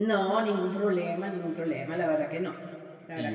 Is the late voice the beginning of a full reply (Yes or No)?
Yes